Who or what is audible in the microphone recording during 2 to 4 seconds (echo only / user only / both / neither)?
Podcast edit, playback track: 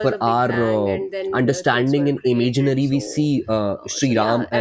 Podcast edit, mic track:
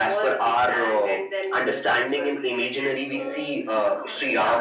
both